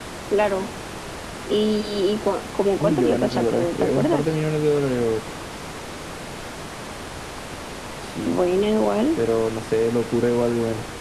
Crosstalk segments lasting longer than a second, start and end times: 2.8-4.2

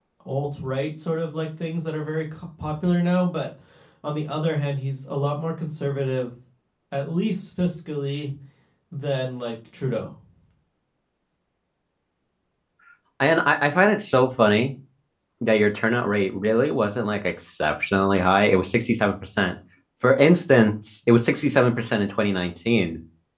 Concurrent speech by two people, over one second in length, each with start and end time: none

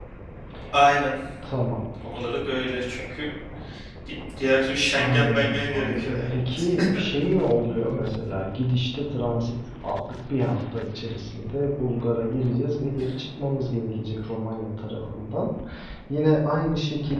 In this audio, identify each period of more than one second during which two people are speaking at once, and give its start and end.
5.0-6.2

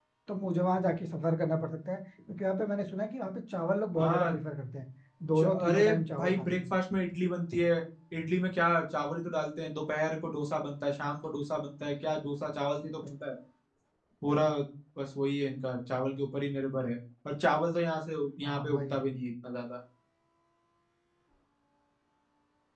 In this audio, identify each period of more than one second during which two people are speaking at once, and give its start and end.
5.4-6.6

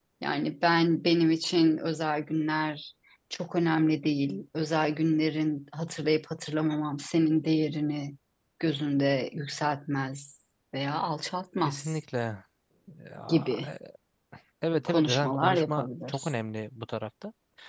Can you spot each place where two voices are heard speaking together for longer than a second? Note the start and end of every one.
14.9-16.3

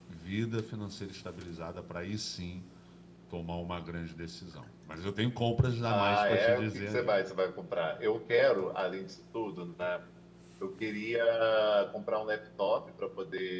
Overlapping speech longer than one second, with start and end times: 5.9-7.2

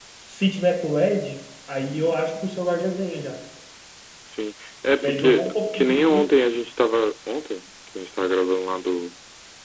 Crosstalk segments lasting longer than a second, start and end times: 5.0-6.2

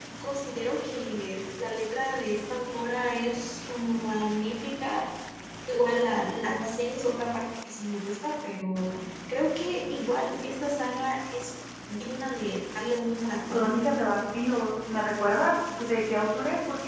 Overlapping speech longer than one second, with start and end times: none

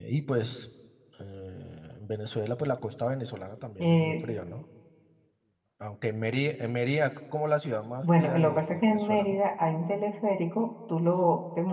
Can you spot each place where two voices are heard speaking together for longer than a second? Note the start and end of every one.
8.0-9.4

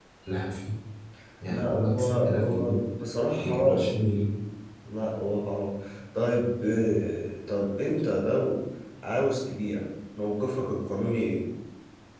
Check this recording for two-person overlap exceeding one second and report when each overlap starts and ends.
1.5-2.8

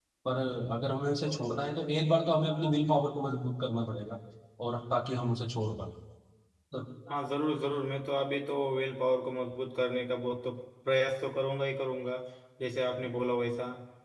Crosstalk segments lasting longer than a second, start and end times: none

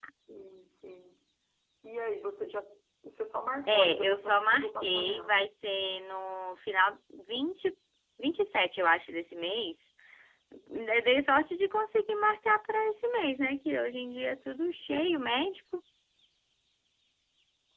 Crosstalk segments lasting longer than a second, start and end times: 3.7-5.4

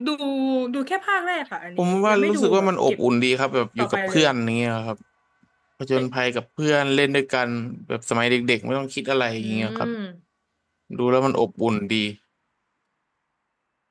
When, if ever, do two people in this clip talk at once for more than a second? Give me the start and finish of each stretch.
1.8-3.0

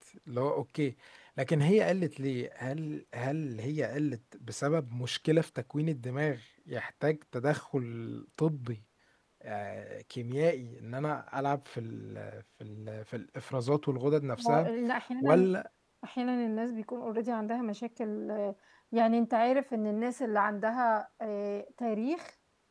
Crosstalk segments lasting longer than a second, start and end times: none

